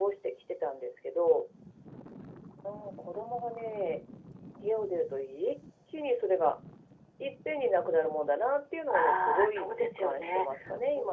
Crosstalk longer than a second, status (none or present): present